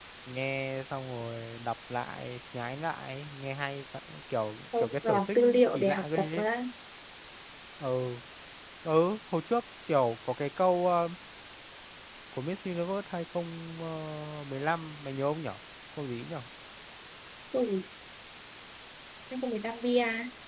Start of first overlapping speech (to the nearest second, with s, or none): 5 s